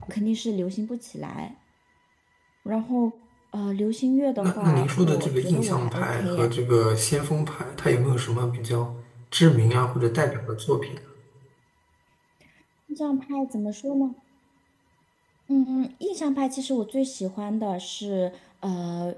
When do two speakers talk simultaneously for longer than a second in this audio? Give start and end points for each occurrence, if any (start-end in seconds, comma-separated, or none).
4.4-6.5